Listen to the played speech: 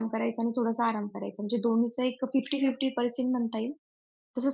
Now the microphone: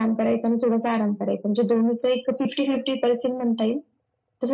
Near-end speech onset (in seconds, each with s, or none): none